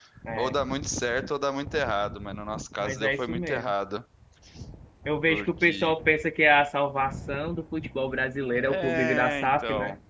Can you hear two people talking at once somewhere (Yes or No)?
Yes